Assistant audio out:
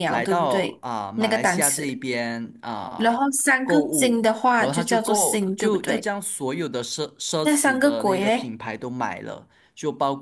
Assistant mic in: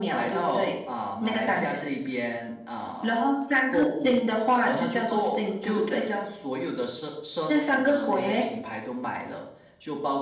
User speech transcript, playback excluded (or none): none